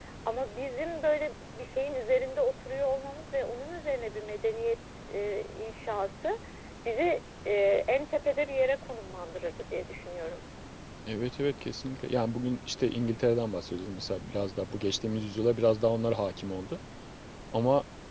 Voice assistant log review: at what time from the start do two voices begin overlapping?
none

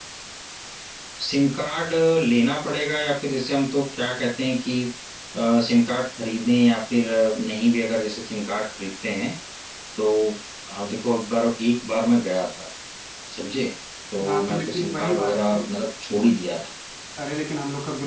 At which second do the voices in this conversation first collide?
14.3 s

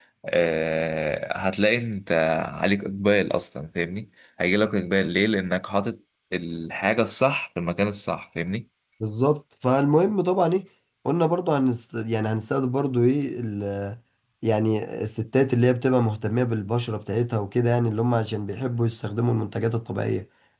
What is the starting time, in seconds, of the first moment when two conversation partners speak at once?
none

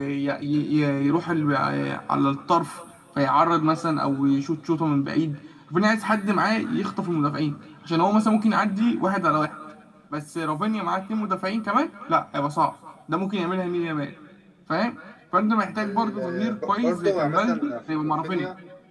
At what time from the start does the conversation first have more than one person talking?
15.8 s

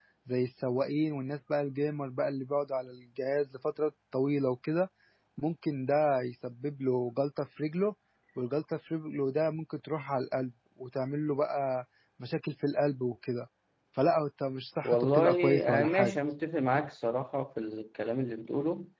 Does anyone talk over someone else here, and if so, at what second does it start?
14.8 s

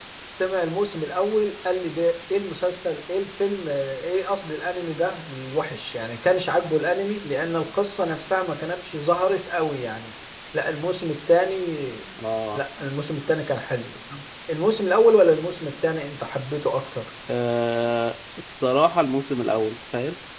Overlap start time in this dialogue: none

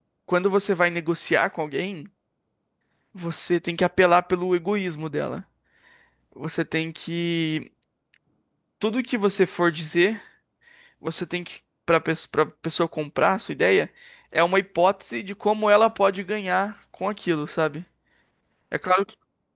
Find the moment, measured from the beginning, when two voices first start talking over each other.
none

